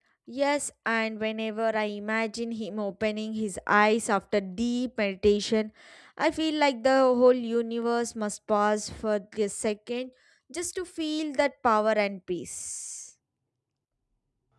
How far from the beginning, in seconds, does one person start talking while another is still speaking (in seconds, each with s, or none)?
none